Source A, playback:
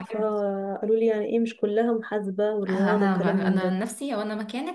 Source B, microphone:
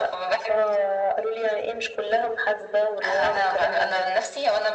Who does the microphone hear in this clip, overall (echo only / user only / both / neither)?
echo only